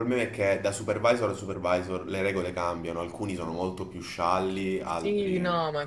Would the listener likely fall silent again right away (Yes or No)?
No